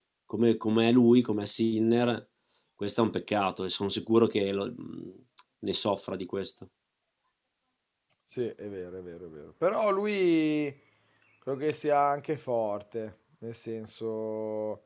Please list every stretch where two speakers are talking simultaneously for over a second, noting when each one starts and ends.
none

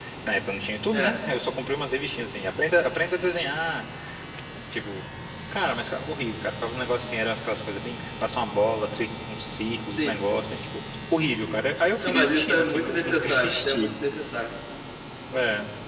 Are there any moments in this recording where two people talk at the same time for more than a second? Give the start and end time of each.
12.0-13.9

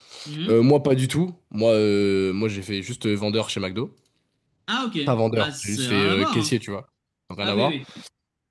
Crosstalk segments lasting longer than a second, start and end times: 5.1-6.5

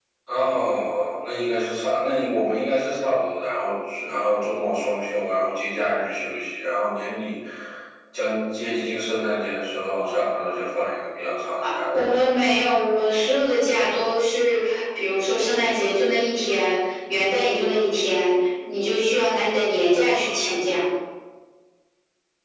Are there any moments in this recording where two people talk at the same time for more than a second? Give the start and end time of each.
none

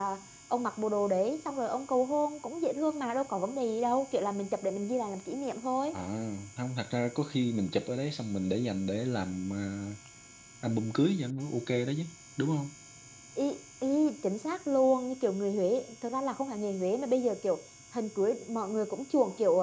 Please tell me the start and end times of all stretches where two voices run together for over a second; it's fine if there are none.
none

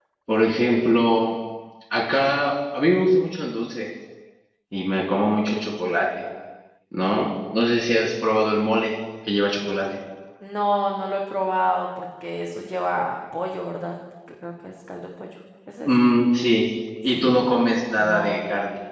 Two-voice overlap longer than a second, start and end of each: 17.1-18.4

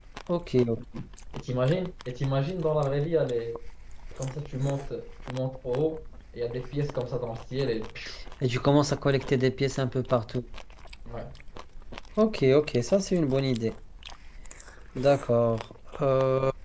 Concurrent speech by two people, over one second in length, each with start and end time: none

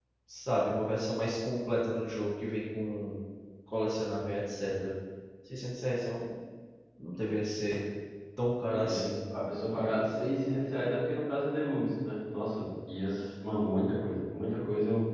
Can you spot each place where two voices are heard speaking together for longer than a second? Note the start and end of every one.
none

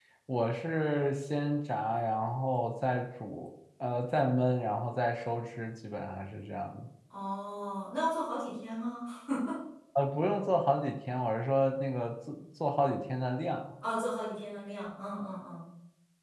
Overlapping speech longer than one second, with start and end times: none

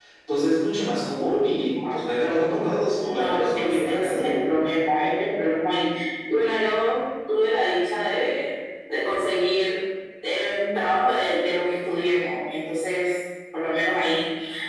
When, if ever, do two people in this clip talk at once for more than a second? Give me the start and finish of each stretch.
2.9-4.2

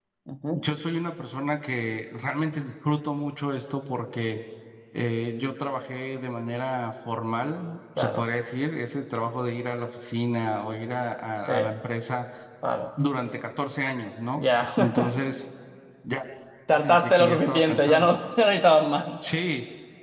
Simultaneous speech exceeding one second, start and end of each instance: 16.7-18.1

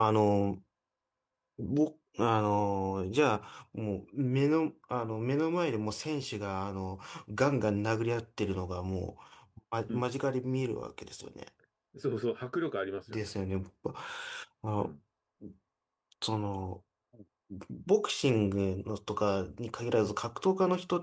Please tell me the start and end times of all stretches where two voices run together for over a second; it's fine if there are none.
none

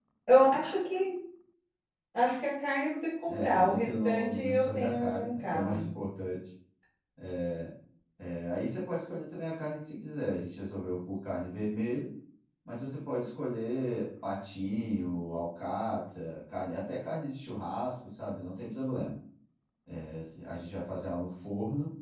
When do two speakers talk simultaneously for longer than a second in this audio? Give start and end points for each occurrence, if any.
3.3-5.9

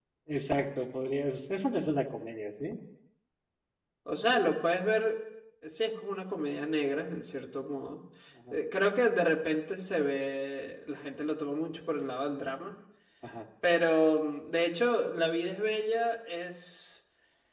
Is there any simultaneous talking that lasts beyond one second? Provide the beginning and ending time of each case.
none

